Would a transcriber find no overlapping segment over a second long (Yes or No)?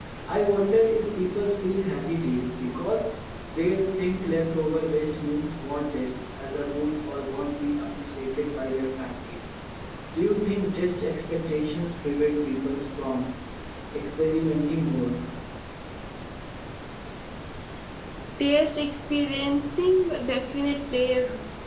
Yes